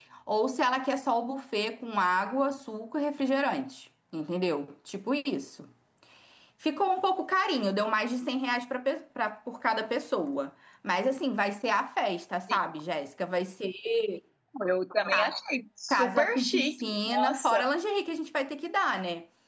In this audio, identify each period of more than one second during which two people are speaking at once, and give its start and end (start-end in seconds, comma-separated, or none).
15.9-17.6